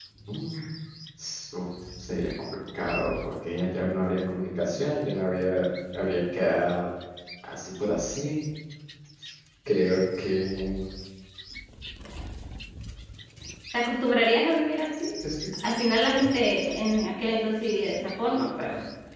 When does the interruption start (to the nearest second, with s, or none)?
none